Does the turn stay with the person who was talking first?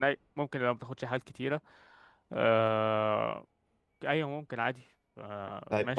No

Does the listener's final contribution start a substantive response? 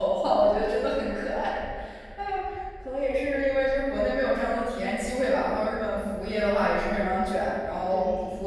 No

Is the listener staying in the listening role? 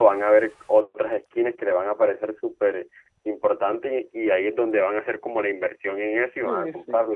No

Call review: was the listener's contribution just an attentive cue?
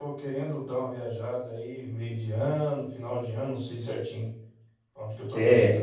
Yes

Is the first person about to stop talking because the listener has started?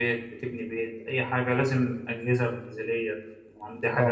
Yes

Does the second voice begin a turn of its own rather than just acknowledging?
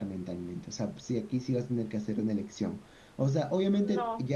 No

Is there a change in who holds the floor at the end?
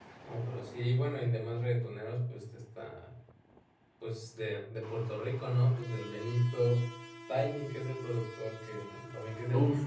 Yes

